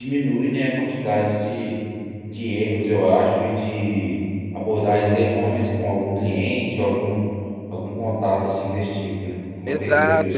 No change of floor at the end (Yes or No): No